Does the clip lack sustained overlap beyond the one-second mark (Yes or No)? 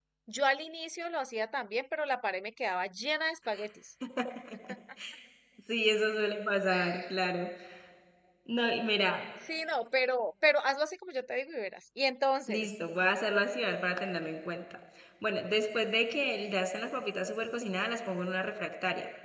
Yes